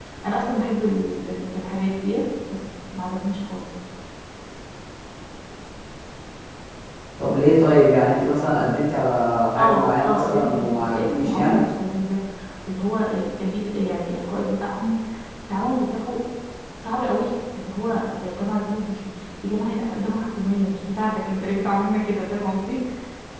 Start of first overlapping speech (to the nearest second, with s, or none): 10 s